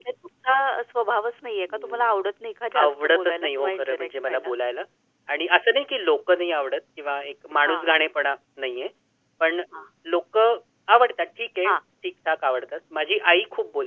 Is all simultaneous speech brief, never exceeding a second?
No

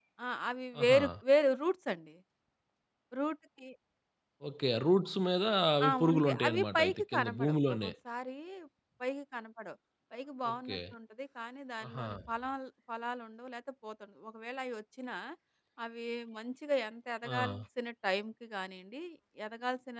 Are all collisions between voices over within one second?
No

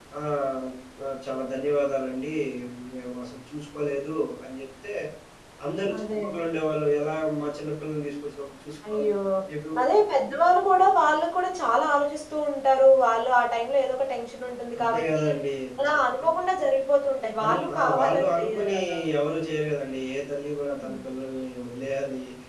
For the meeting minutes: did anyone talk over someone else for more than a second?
Yes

